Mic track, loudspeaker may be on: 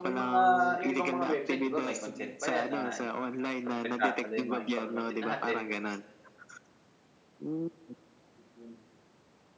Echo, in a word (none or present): present